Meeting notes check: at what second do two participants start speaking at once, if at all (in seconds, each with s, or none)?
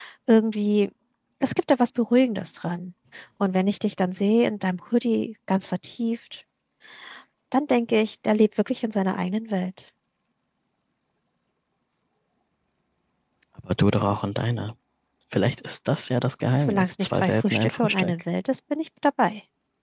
16.6 s